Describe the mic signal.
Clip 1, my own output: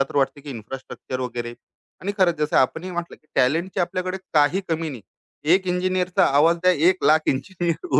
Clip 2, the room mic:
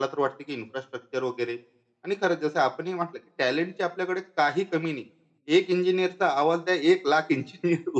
echo only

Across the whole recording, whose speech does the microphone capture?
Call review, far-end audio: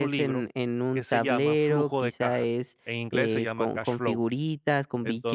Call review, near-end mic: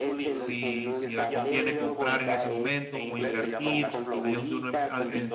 both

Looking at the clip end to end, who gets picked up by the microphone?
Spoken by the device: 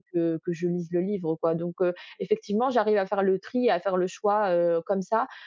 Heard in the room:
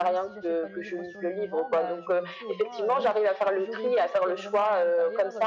both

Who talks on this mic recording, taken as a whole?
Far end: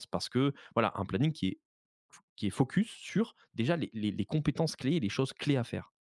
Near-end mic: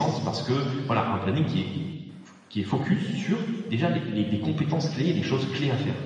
echo only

